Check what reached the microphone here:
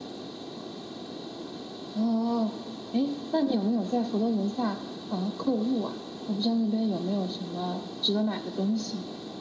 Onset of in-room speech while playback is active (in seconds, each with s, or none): none